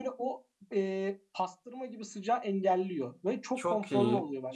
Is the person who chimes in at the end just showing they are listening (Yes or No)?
No